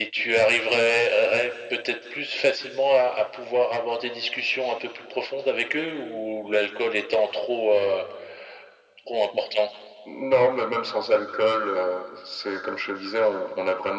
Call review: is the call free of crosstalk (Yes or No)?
Yes